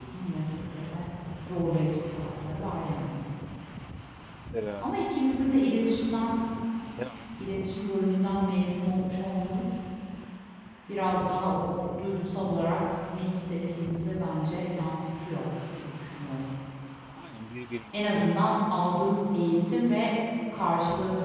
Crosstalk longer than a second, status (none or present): none